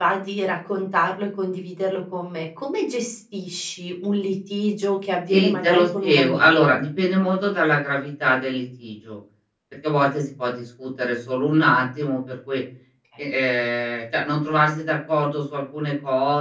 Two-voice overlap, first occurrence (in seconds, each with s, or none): 5.3 s